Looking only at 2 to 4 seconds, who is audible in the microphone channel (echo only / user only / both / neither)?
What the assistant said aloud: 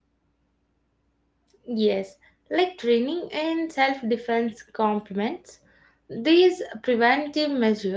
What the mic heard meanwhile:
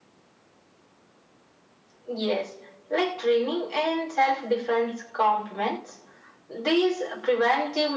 echo only